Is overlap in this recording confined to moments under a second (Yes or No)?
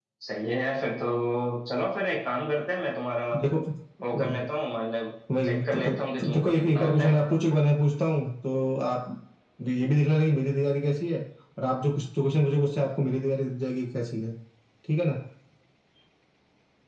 No